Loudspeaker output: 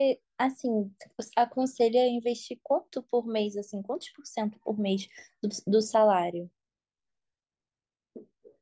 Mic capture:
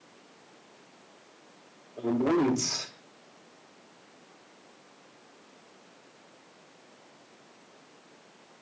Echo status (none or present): none